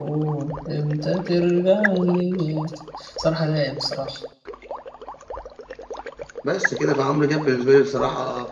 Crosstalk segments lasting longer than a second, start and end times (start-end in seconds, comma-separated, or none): none